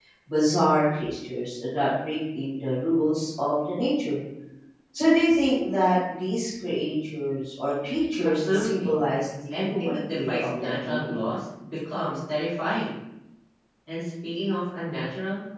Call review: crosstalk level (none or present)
present